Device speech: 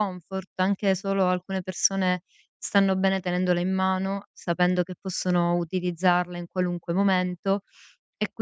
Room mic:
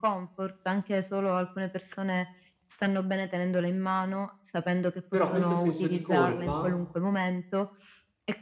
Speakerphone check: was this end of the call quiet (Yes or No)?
No